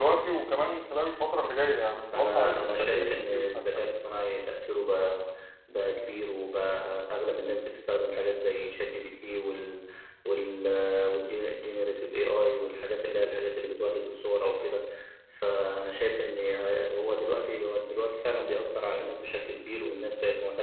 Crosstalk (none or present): present